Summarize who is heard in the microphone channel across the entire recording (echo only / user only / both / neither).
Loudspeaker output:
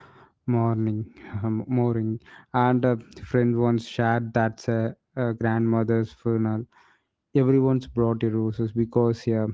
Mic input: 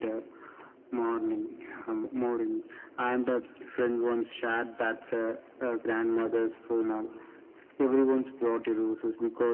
echo only